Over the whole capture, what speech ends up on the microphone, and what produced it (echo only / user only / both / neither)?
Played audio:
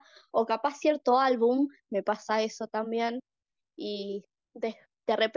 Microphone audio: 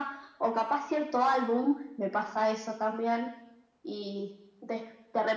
echo only